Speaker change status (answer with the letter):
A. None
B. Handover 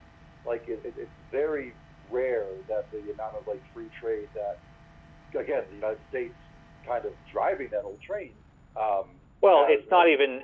B